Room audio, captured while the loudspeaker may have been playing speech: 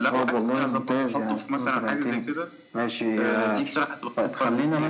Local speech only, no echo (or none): none